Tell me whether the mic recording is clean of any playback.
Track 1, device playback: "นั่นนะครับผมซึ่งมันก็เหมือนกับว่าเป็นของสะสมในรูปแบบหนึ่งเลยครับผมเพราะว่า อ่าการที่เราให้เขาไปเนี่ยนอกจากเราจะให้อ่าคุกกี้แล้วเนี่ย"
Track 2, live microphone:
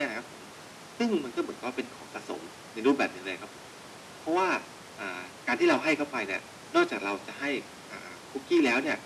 No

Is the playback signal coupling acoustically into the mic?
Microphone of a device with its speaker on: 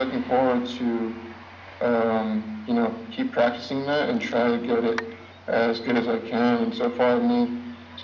Yes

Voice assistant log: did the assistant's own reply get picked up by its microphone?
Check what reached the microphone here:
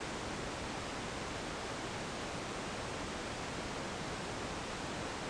No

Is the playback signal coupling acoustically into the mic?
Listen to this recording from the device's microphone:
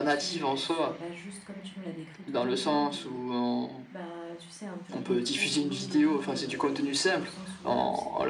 Yes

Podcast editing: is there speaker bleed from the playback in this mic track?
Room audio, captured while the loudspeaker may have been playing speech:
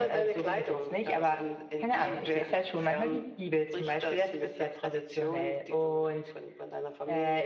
Yes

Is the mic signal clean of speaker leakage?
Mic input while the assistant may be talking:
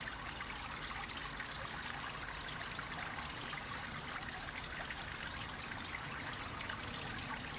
Yes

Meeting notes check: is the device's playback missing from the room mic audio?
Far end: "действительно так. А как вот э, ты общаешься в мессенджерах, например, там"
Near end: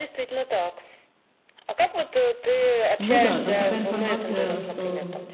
No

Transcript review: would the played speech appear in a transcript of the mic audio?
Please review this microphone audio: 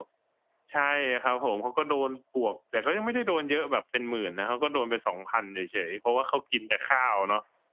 No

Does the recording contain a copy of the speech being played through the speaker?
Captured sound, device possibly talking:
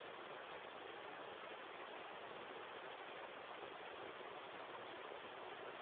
No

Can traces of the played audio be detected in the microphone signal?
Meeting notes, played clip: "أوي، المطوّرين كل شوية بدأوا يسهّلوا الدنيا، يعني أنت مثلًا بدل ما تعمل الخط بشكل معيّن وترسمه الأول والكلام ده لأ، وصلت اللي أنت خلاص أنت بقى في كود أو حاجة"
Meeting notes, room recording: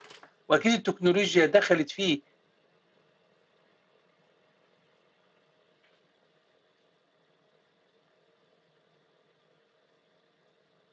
No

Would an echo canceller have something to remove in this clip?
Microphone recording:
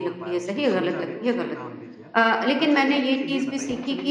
Yes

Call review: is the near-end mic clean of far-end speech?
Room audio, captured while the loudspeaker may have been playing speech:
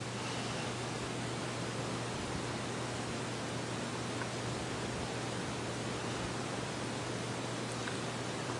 Yes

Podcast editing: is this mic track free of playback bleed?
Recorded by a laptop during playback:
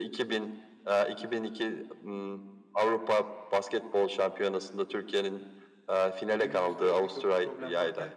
No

